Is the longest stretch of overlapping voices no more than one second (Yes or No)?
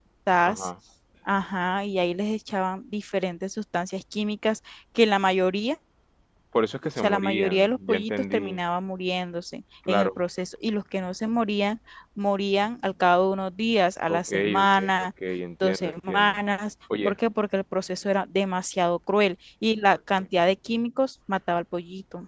No